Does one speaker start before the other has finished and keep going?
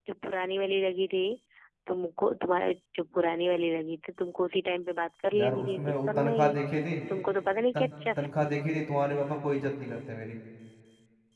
Yes, from 5.3 s

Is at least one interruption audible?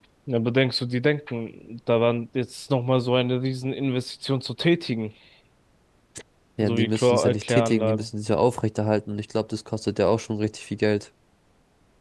Yes, from 6.6 s

